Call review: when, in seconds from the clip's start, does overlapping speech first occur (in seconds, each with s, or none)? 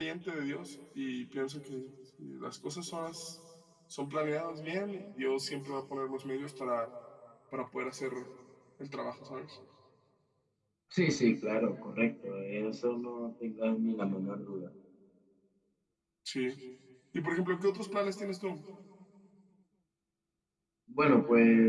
none